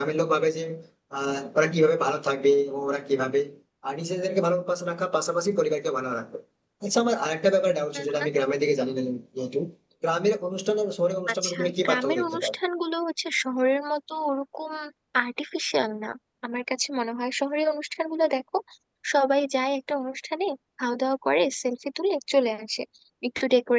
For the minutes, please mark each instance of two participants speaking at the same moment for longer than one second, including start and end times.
11.3-12.5

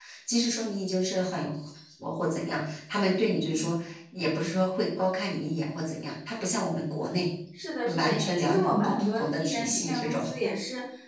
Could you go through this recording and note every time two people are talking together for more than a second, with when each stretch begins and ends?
7.9-10.2

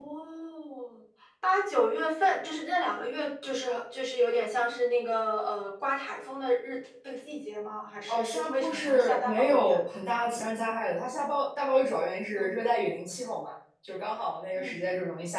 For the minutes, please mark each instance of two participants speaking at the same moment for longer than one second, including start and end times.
8.1-9.8

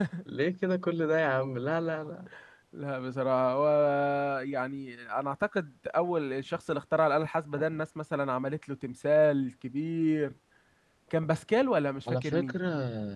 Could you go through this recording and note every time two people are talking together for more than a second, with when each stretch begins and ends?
none

